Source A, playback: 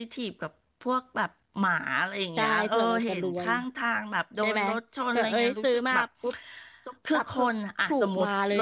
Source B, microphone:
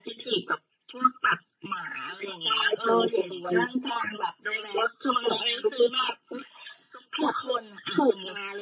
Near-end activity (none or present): none